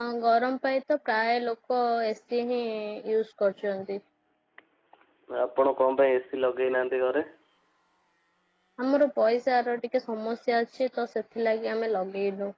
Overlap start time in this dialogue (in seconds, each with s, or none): none